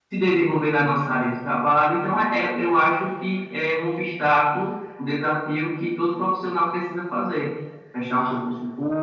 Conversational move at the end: listening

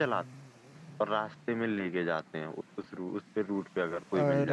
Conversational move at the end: taking over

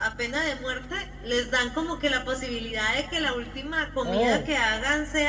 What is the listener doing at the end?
listening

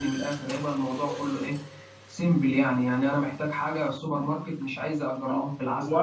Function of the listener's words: taking over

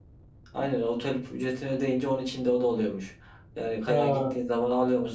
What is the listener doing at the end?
listening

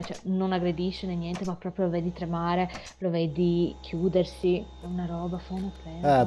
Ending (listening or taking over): taking over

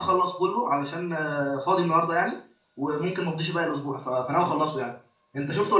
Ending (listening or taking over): taking over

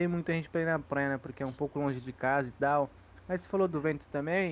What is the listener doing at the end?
listening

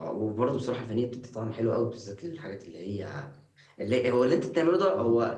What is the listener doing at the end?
listening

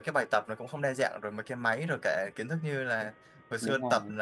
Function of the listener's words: listening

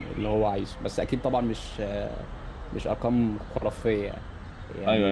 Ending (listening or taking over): listening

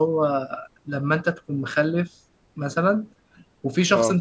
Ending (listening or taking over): listening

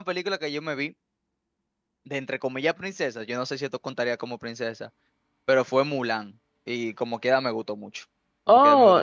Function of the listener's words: taking over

